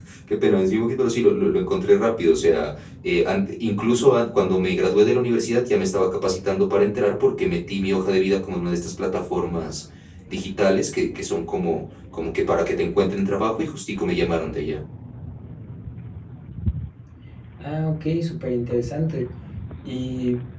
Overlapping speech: No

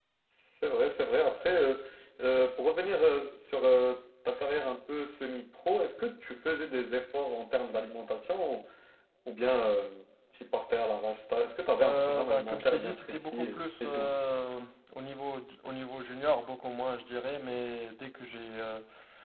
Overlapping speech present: Yes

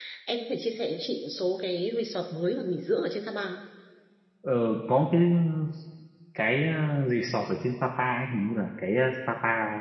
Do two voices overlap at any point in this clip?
No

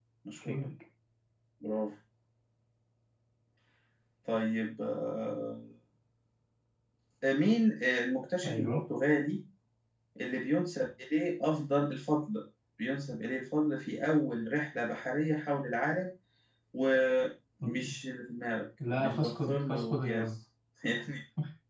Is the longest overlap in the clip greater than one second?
Yes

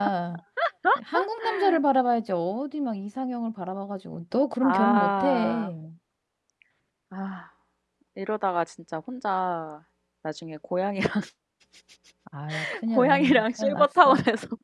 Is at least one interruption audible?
Yes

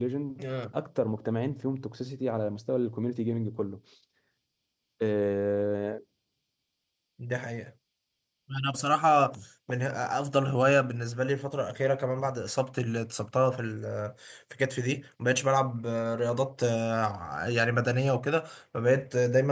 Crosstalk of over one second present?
No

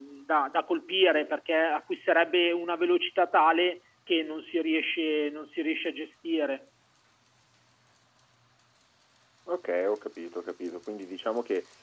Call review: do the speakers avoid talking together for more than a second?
Yes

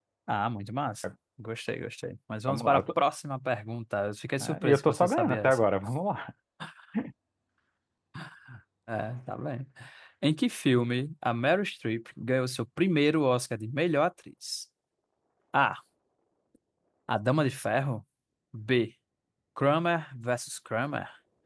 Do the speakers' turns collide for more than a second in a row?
Yes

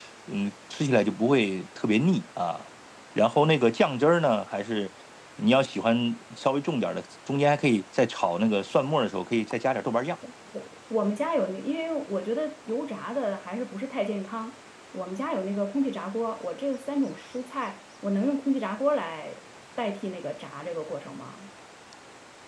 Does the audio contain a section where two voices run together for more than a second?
No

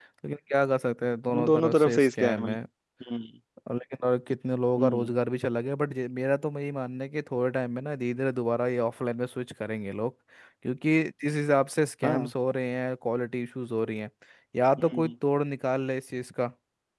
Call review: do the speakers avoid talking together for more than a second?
No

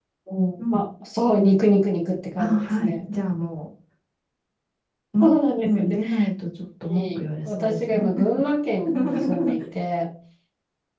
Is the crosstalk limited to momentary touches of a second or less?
No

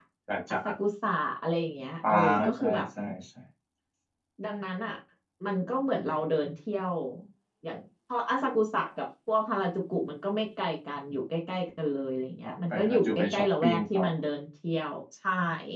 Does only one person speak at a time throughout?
No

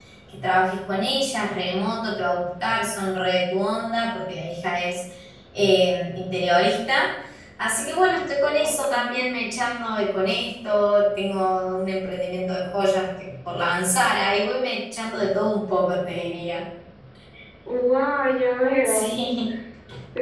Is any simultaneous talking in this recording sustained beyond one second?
No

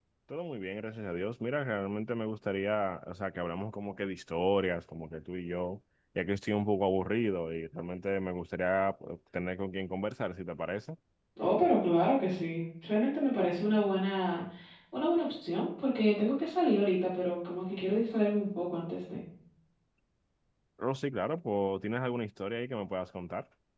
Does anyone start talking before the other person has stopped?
No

